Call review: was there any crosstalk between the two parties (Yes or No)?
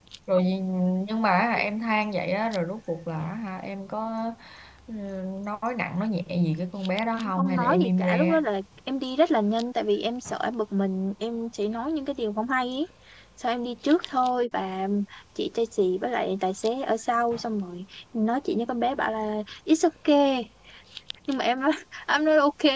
Yes